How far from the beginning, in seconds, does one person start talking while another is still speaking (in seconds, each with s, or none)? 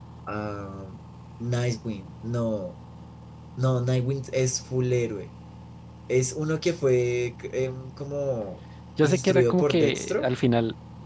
9.0 s